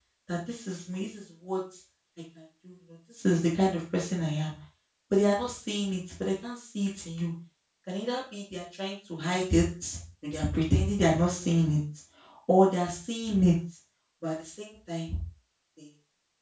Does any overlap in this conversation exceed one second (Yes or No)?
No